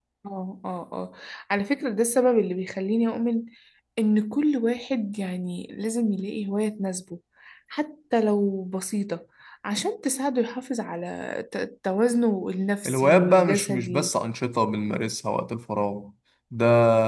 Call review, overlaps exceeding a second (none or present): present